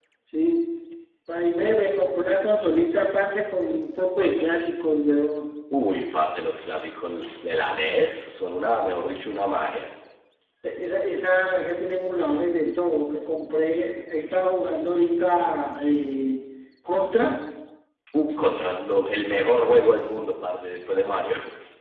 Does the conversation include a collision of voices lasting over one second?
No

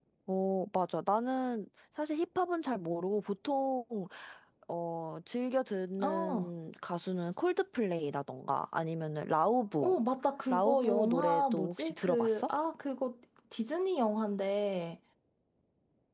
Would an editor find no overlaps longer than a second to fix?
No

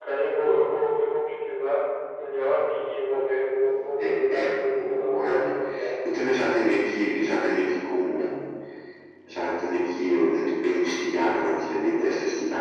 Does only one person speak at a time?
No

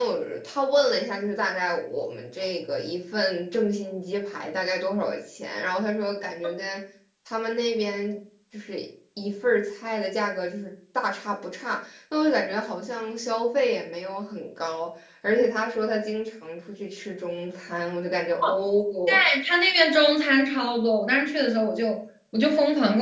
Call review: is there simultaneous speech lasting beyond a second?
No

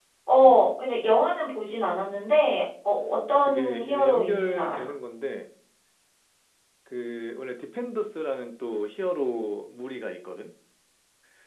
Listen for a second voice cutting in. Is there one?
Yes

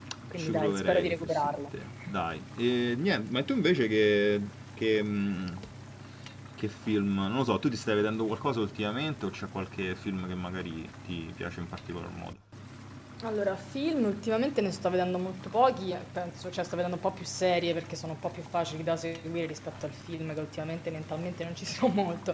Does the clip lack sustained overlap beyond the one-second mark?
No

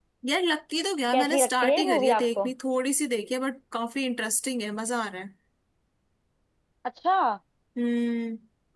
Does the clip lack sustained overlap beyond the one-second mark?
No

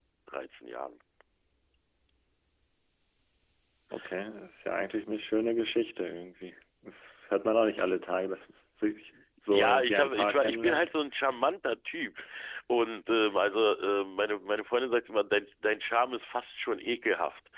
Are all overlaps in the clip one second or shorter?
No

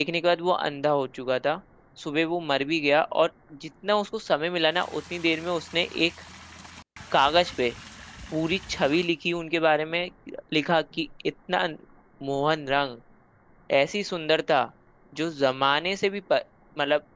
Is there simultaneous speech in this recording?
No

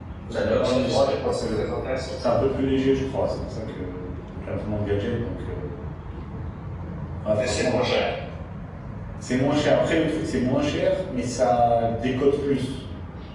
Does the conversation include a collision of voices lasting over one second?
Yes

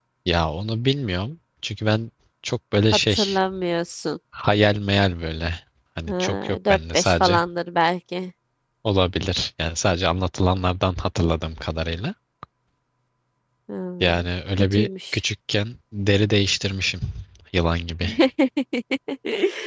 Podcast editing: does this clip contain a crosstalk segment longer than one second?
Yes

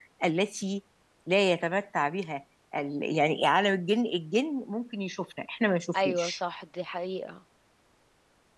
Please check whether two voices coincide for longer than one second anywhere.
No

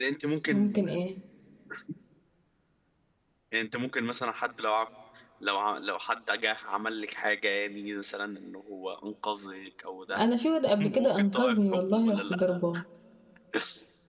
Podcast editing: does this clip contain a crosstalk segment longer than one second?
Yes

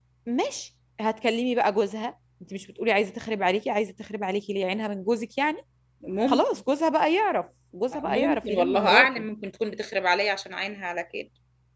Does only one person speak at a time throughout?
No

